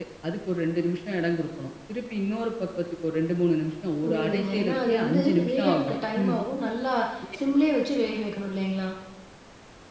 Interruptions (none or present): present